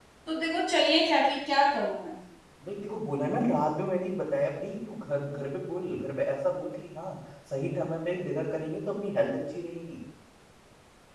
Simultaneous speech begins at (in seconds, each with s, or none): none